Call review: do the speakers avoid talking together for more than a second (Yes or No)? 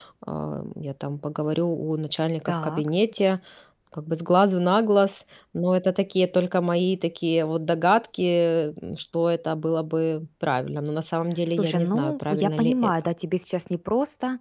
No